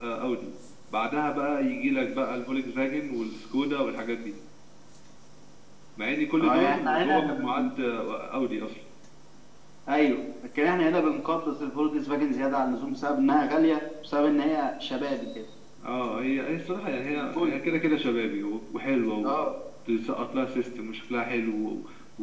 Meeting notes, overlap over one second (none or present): present